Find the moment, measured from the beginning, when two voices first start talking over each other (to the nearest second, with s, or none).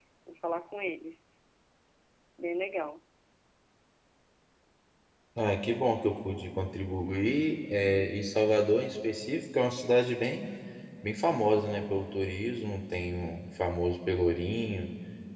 none